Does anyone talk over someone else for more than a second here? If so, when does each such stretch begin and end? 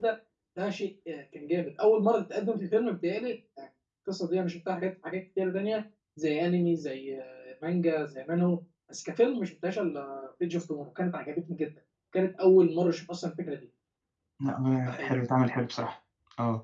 none

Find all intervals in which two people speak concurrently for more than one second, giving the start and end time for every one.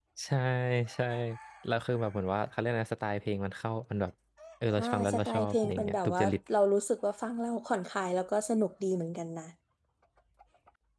4.8-6.3

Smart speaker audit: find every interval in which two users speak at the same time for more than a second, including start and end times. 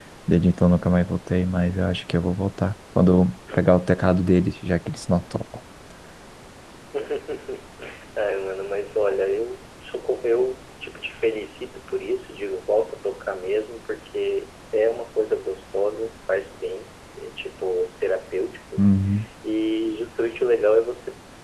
none

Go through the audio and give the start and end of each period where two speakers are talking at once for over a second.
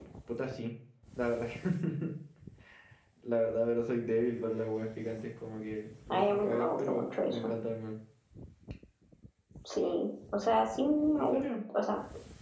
6.1-7.5

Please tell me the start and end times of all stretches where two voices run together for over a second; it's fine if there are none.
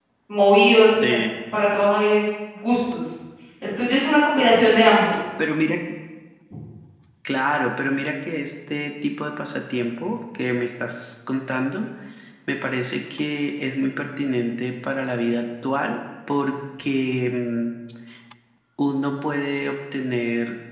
none

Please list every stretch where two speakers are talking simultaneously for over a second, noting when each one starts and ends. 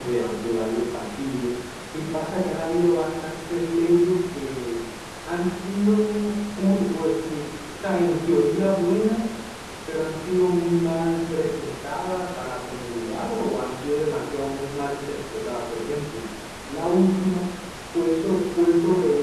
none

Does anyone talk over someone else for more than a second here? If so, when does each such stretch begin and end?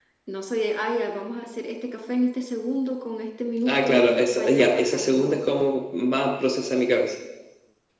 3.7-5.4

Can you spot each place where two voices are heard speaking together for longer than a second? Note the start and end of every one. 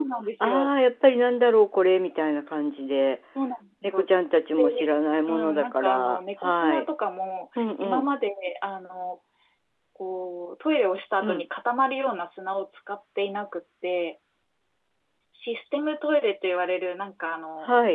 5.3-6.8

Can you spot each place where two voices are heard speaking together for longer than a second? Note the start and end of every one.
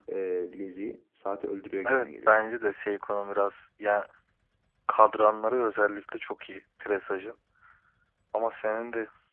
none

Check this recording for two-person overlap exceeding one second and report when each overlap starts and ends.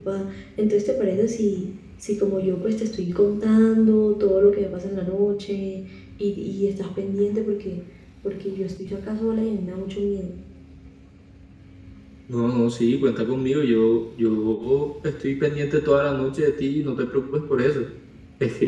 none

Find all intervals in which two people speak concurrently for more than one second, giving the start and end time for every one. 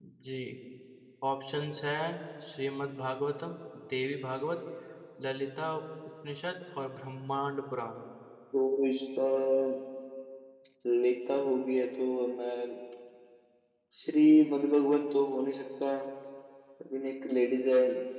none

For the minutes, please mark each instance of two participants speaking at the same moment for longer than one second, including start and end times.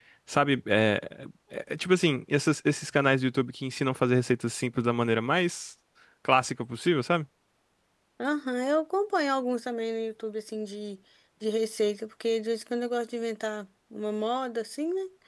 none

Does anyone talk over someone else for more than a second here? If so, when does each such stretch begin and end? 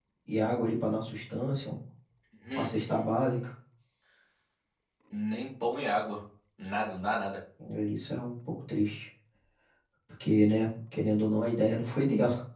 none

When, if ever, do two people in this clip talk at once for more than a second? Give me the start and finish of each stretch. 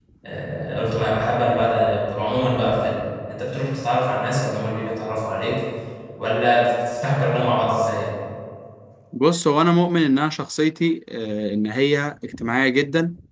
none

